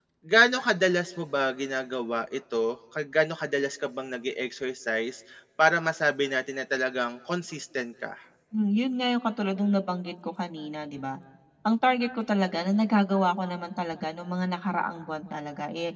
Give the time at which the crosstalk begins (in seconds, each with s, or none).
none